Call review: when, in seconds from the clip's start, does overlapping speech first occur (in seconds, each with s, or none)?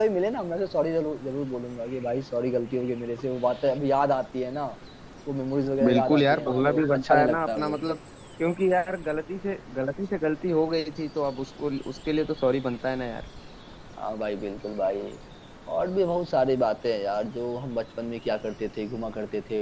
5.8 s